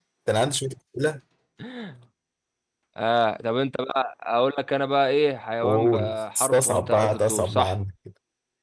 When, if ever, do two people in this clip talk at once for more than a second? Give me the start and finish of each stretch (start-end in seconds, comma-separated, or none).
5.6-7.7